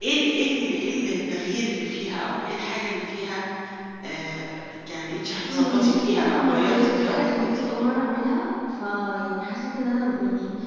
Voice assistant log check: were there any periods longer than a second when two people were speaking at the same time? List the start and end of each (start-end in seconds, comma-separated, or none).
5.5-7.8